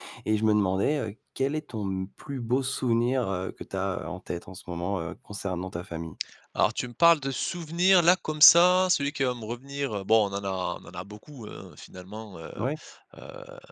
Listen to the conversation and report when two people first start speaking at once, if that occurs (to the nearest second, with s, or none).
none